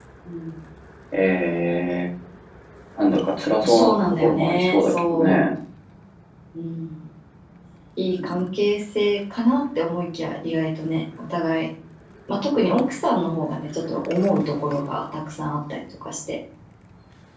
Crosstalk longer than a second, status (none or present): present